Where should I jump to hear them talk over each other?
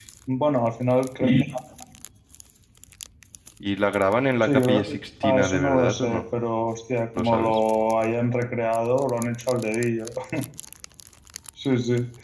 4 s

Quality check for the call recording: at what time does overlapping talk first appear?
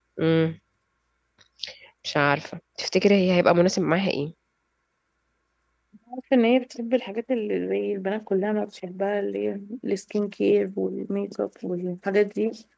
none

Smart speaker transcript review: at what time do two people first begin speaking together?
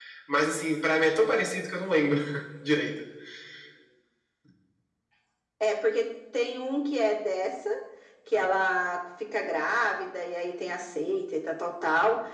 none

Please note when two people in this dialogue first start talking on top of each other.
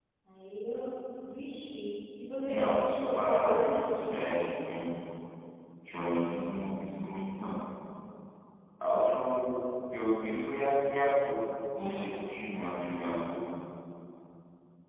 3 s

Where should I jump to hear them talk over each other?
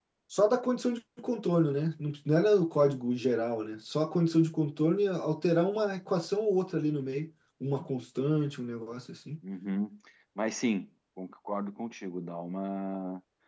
none

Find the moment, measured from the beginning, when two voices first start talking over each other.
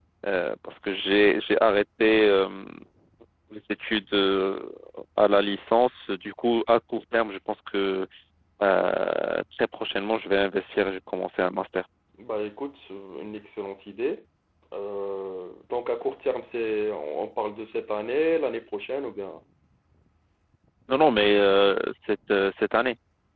none

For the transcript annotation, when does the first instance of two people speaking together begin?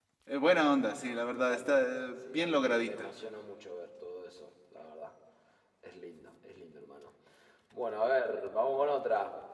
1 s

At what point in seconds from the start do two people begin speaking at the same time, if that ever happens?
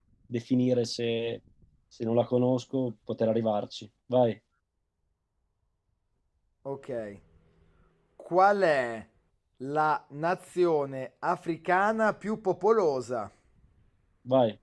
none

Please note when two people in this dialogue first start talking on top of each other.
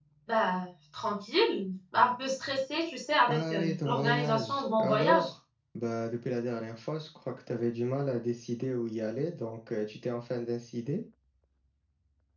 3 s

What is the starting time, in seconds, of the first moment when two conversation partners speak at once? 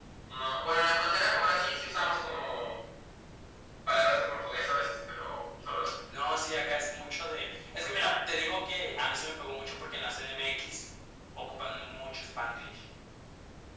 none

